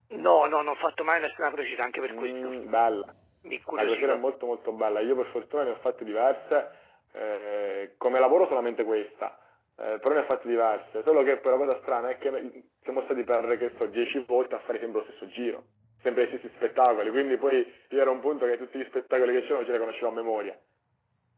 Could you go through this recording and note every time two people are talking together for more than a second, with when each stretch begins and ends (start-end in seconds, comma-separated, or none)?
none